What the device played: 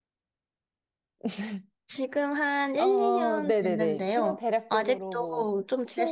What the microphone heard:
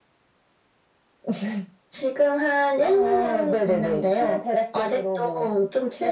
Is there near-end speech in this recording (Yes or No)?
No